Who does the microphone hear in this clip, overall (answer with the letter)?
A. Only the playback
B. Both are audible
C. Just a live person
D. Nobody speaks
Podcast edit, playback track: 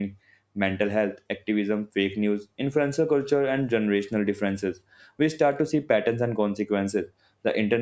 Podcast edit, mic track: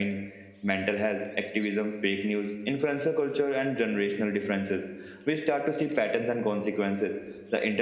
A